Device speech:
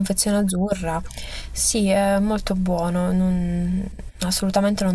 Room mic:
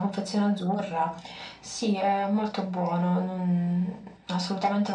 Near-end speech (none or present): none